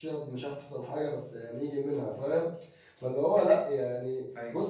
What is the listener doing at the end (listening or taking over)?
listening